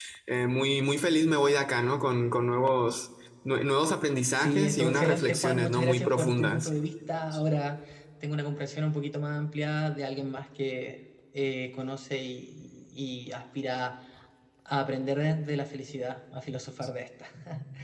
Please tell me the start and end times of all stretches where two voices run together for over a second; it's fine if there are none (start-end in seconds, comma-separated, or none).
4.4-6.7